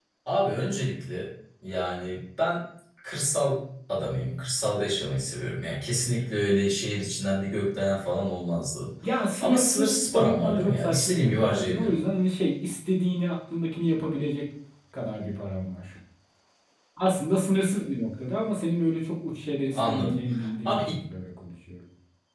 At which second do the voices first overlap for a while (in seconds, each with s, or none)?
9.4 s